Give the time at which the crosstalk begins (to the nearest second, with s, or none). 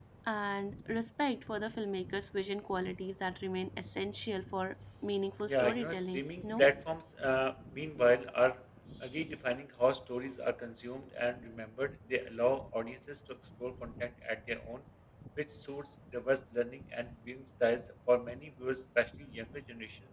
5 s